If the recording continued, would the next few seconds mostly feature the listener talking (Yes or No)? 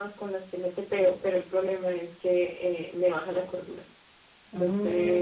Yes